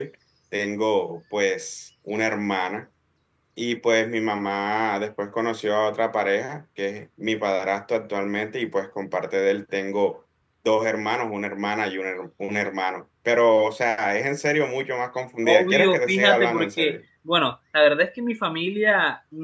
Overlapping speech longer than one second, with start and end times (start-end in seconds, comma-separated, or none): 15.4-17.0